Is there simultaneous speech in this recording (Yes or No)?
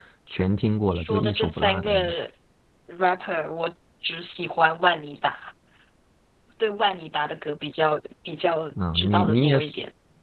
Yes